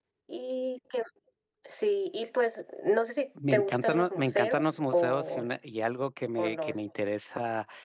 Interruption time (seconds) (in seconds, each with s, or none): 3.5 s